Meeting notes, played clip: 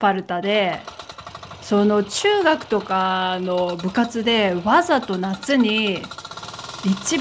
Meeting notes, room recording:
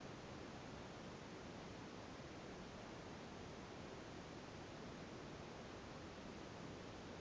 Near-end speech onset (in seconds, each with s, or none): none